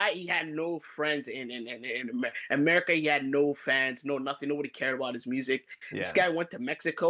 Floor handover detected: No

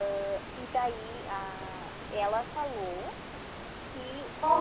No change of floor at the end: Yes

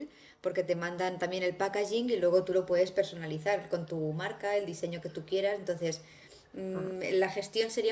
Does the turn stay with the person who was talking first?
Yes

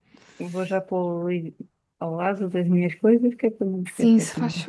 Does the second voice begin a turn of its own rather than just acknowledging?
Yes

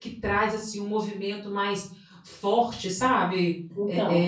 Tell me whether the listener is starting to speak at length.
No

